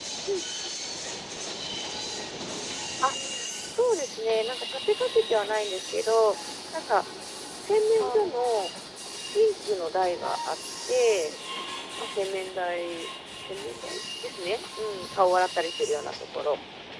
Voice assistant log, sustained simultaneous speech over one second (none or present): none